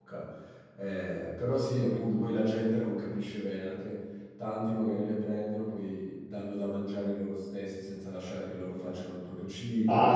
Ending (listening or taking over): taking over